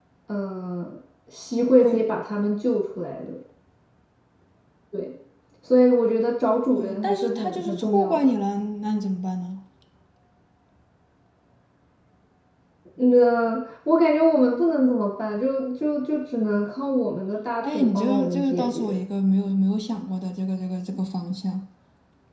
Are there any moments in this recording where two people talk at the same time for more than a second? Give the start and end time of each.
6.8-8.3, 17.6-19.0

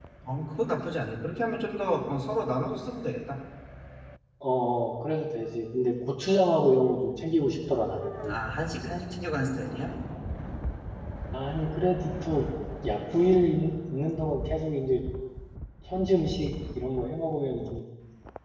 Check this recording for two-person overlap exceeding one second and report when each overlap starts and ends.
none

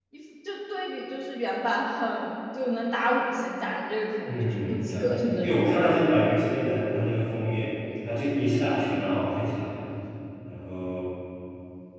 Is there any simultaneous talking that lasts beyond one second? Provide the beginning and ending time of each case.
4.2-5.9

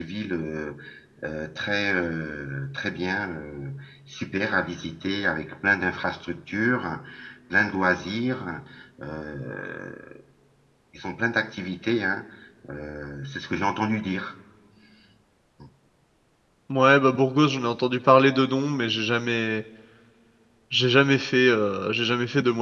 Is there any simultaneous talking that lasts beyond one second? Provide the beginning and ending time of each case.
none

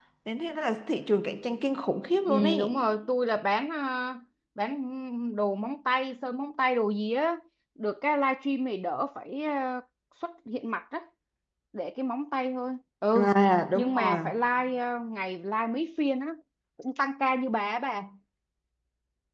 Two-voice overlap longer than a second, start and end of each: none

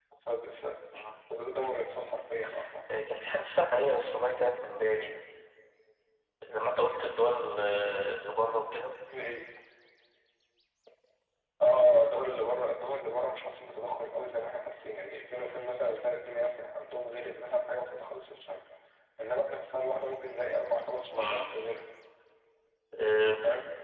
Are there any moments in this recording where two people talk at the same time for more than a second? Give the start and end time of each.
none

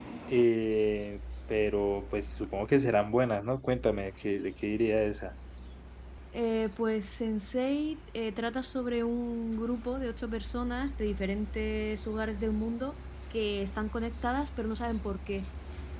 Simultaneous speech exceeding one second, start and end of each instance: none

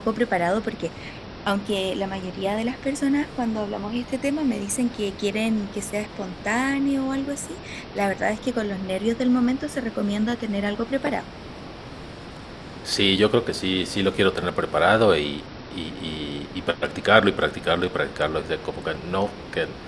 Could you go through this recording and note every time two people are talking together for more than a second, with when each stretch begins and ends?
none

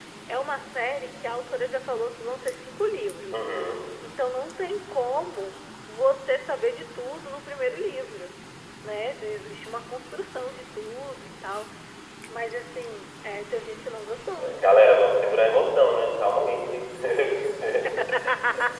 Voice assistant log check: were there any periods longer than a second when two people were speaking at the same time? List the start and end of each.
none

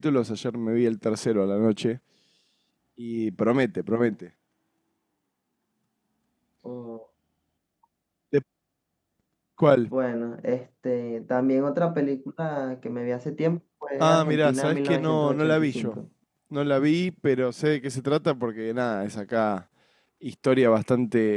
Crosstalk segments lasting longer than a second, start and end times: 14.0-16.0

